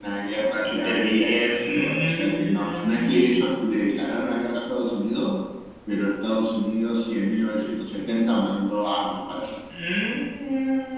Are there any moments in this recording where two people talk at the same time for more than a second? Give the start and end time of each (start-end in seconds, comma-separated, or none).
0.7-3.5